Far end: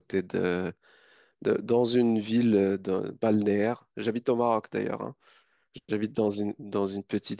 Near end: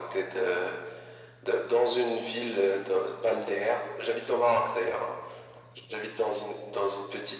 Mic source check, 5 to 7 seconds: echo only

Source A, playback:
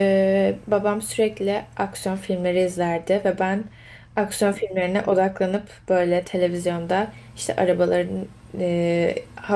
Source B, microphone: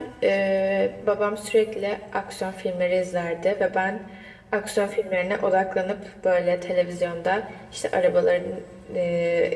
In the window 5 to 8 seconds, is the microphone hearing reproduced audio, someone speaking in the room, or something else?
echo only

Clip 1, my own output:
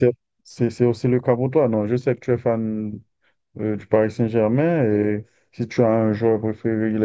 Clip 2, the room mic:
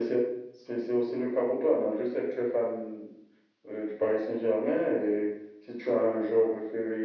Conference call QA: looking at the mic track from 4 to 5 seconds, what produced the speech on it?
echo only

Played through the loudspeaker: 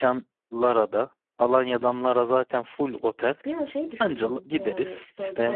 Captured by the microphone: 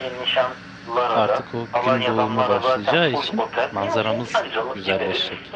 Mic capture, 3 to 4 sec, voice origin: both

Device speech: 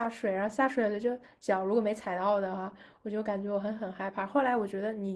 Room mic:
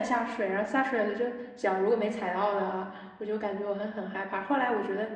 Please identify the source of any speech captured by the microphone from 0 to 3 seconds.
echo only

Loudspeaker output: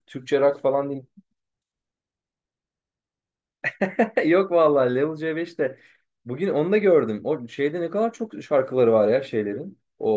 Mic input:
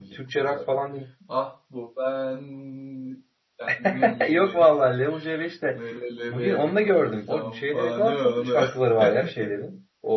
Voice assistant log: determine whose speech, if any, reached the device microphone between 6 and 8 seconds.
both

